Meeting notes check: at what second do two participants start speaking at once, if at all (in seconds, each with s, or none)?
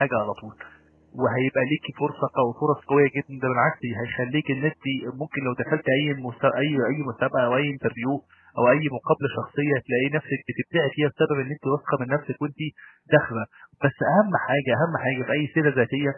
none